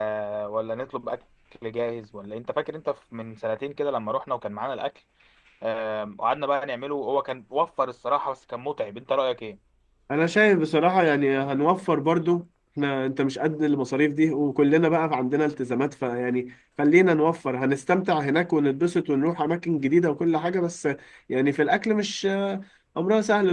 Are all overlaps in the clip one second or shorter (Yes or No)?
Yes